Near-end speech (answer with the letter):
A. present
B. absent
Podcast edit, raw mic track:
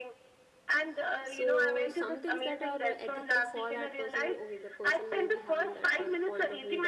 A